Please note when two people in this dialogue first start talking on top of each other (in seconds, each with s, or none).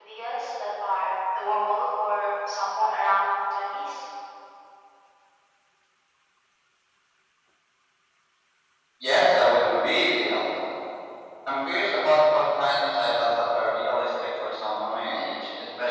none